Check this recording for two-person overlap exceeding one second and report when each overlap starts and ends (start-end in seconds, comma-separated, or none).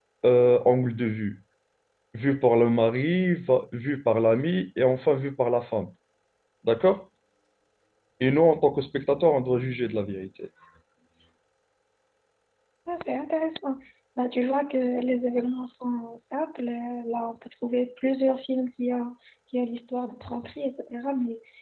none